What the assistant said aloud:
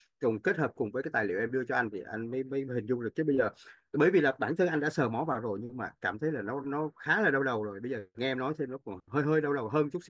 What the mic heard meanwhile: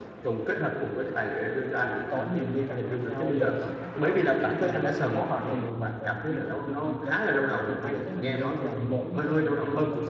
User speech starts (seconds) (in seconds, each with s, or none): 2.0 s